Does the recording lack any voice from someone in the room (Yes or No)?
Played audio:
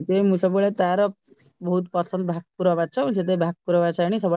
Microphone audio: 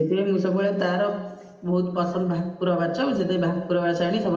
Yes